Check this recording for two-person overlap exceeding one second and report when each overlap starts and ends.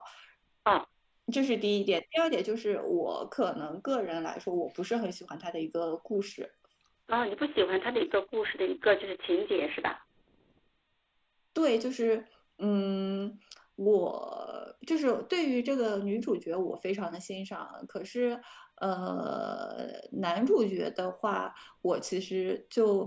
none

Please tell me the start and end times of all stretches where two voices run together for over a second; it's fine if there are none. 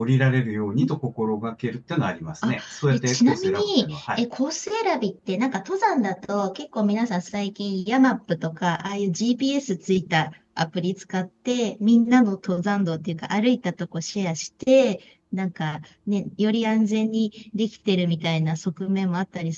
2.4-4.2

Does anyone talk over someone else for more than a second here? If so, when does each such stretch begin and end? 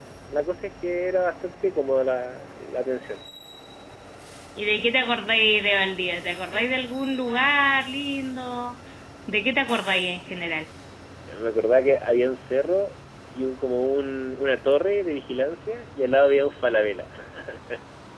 none

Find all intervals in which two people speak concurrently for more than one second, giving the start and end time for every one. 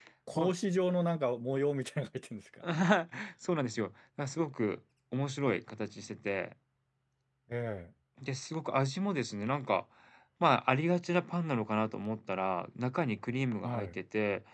none

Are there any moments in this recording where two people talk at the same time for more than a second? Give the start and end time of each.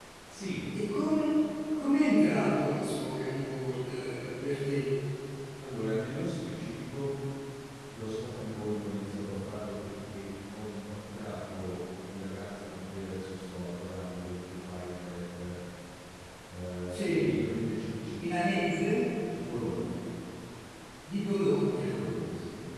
none

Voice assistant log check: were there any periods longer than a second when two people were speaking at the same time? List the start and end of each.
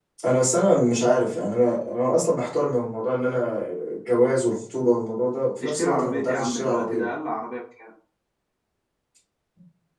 5.6-7.1

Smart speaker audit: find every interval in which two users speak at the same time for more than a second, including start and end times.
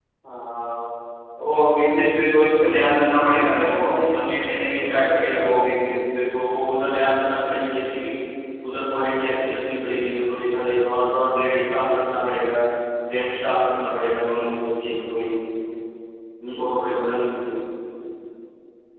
3.4-5.5

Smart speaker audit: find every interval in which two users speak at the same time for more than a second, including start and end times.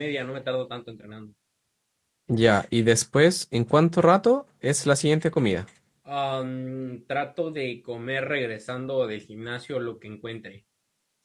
none

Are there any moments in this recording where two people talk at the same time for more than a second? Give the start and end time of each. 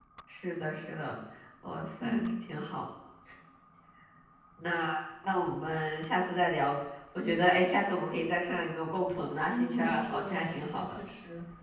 9.5-11.0

